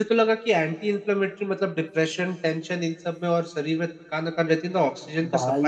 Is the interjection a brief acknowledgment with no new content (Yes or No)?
Yes